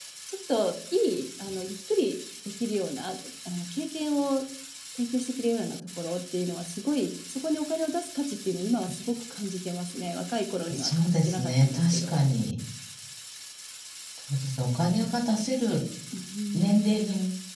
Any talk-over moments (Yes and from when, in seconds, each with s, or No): Yes, from 10.7 s